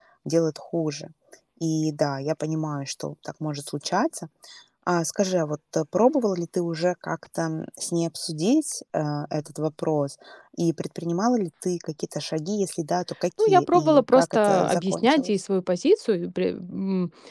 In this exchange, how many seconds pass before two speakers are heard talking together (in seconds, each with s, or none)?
13.4 s